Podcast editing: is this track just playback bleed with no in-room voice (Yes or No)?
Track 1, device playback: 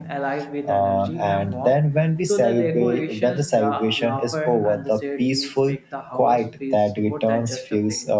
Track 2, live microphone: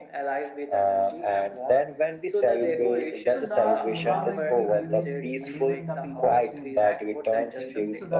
No